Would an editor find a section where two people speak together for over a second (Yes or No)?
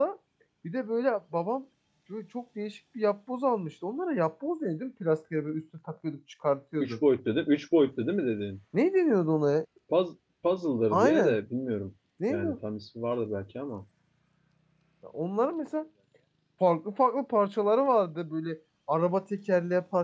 No